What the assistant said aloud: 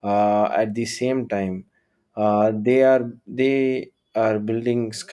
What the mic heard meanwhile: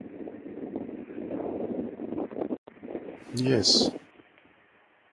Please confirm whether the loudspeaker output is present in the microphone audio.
No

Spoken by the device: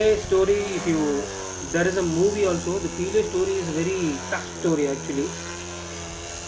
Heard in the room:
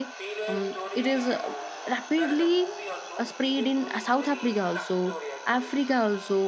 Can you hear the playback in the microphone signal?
Yes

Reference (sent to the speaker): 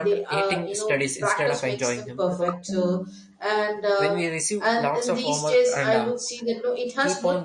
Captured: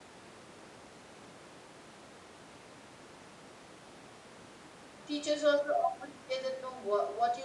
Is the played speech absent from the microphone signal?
Yes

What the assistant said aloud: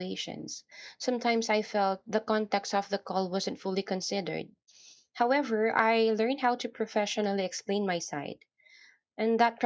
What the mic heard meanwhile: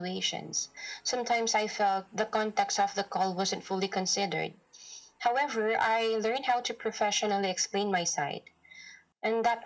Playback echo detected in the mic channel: Yes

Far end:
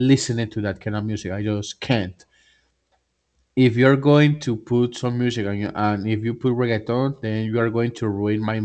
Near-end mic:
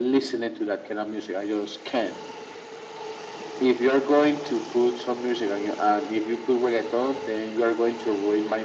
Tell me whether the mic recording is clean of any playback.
No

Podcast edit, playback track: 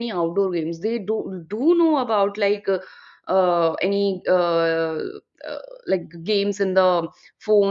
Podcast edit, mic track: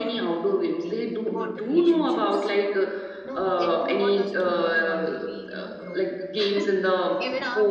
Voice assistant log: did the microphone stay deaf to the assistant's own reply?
No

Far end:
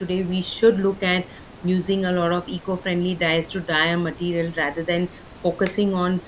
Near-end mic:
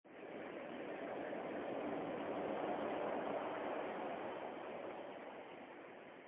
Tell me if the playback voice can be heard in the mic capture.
No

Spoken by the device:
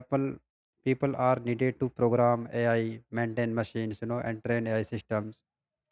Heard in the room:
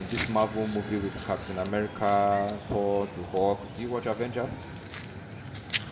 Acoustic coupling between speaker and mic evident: No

